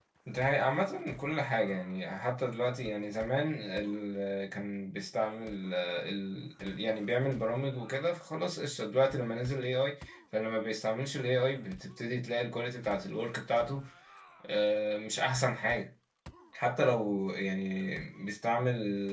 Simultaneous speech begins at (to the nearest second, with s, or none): none